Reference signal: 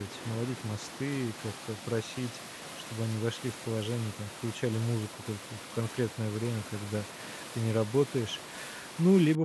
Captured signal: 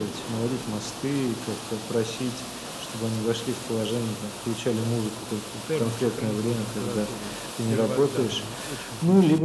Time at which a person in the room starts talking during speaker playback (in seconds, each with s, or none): 5.7 s